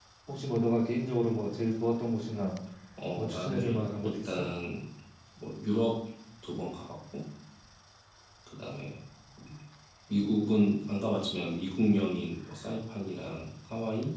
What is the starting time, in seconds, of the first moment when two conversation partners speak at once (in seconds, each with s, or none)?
3.2 s